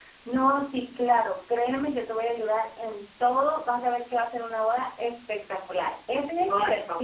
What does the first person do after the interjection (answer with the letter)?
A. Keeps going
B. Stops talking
A